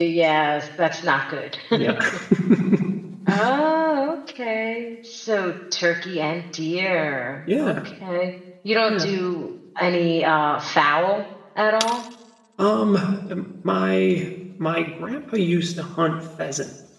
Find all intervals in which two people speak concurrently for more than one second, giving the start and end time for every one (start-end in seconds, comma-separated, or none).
none